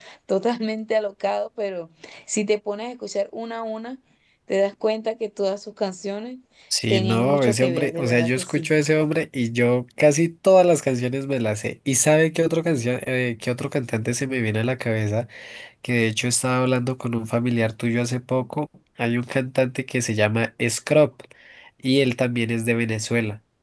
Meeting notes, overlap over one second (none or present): present